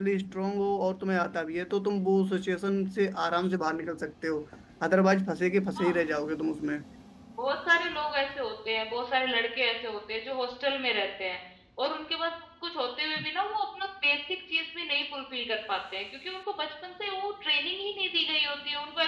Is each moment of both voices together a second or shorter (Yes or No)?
Yes